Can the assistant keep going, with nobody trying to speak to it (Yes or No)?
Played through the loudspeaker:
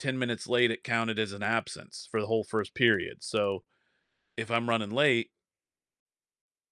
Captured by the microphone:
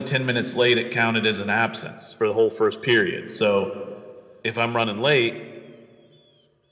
Yes